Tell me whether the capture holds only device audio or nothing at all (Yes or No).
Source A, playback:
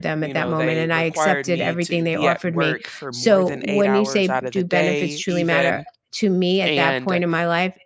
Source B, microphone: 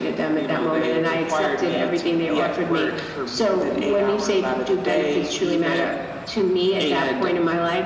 Yes